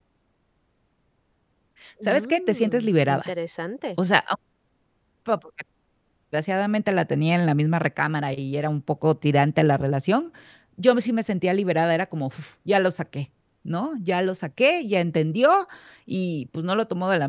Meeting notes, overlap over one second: present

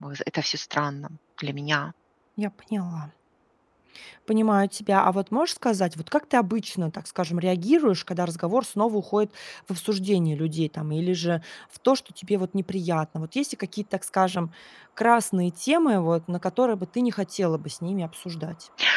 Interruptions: none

